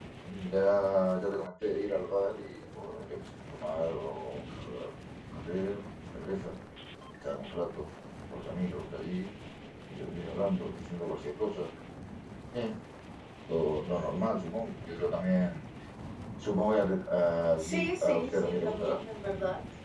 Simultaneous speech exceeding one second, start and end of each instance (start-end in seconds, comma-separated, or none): 17.6-19.0